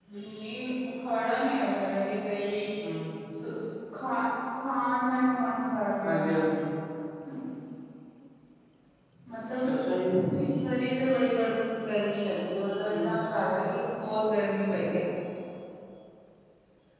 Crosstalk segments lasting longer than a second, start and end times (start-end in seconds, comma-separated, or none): none